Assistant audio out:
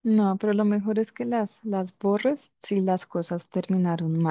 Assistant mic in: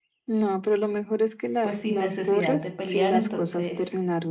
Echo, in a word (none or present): present